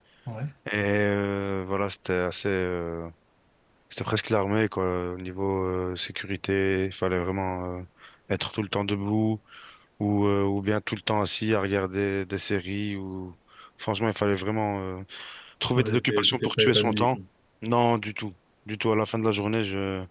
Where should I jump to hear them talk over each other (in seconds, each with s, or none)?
15.8 s